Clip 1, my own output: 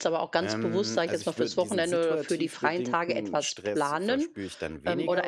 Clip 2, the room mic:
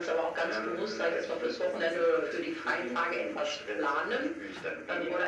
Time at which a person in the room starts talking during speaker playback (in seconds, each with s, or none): none